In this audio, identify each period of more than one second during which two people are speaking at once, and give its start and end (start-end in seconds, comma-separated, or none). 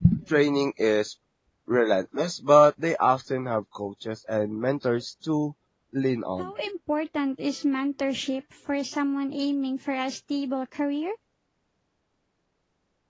none